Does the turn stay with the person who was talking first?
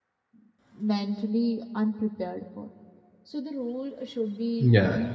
Yes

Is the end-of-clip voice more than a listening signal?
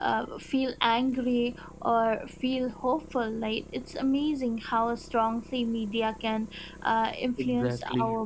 No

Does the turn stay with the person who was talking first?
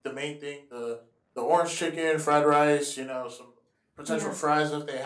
Yes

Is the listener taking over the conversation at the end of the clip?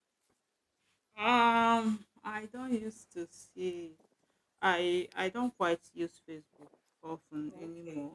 Yes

